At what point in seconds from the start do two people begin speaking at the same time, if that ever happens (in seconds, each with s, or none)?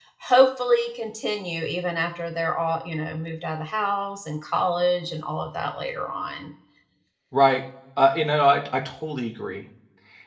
none